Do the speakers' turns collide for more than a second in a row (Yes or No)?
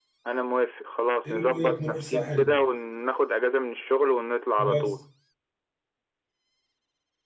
Yes